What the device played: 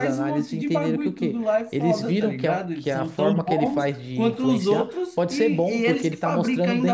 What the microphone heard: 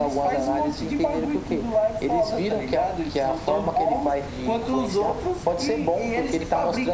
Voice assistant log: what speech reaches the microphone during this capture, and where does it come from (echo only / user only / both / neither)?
echo only